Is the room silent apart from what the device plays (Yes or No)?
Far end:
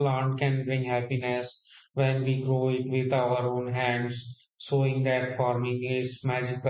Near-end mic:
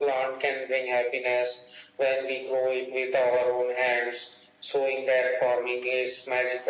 Yes